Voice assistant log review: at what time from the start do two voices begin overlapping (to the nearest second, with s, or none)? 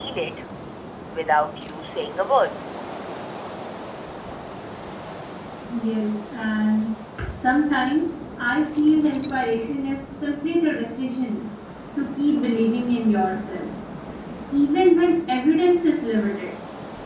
none